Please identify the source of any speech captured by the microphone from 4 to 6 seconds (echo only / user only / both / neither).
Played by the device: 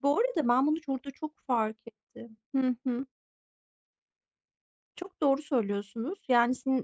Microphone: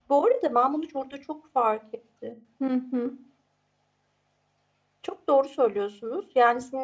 echo only